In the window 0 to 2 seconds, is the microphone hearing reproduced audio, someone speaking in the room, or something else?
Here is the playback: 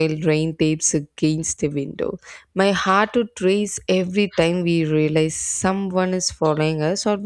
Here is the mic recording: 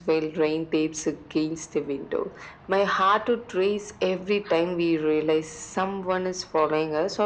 echo only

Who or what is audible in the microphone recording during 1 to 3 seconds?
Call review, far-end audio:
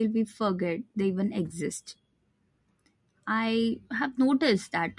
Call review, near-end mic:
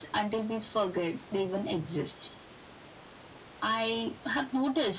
echo only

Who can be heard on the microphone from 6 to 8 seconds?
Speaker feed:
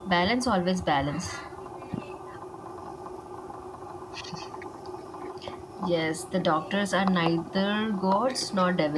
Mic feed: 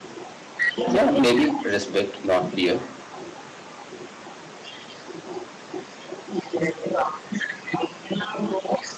echo only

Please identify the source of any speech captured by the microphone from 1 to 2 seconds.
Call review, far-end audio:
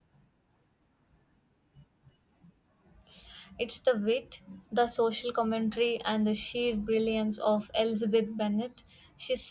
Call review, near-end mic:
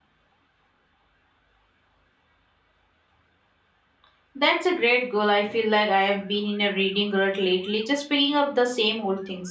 neither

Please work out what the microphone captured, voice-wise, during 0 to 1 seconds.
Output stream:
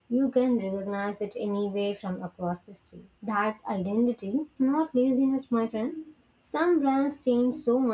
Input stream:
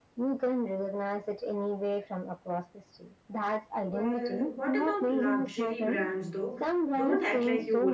echo only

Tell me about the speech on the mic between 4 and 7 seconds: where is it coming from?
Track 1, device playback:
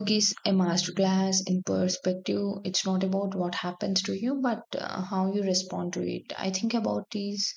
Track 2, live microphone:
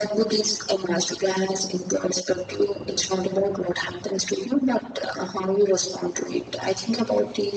echo only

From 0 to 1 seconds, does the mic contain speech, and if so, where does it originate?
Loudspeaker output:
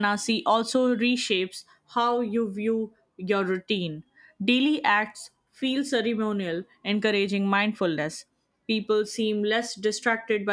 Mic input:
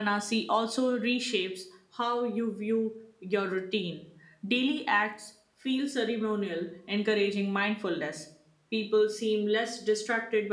echo only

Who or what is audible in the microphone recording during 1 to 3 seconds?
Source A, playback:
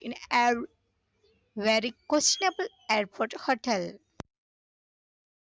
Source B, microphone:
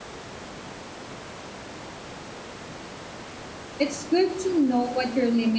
neither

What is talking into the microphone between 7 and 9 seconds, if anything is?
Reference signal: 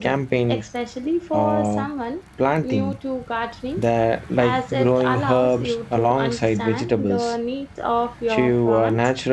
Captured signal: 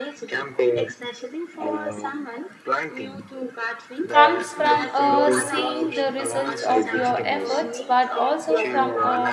both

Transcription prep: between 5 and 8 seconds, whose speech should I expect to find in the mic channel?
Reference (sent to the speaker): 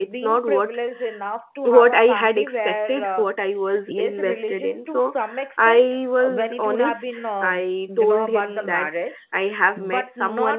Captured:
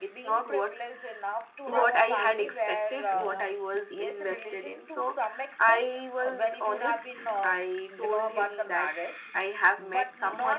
echo only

